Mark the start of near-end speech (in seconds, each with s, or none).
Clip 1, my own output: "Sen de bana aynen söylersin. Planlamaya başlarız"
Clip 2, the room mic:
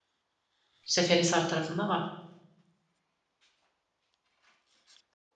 0.8 s